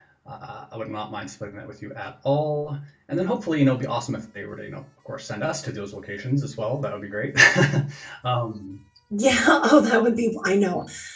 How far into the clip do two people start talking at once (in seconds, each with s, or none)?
none